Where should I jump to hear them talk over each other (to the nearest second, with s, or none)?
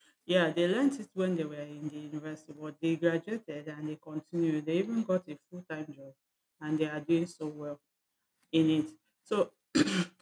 none